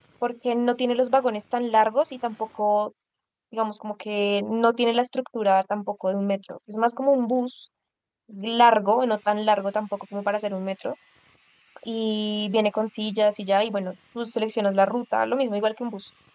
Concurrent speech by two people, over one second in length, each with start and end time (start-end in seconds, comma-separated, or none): none